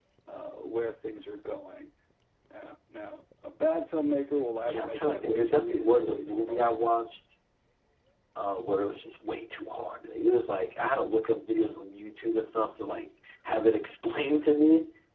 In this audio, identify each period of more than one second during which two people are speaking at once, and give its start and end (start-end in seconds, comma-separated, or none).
4.7-6.8